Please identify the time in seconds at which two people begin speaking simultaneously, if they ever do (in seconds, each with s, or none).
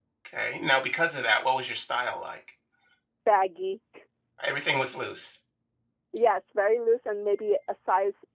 none